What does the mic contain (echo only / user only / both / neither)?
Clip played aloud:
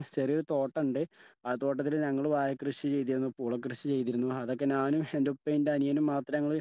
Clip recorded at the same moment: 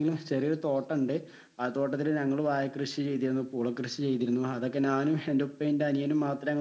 echo only